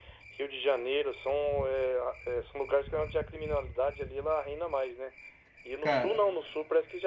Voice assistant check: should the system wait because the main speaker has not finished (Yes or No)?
Yes